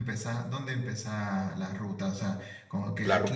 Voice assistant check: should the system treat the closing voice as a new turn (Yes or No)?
Yes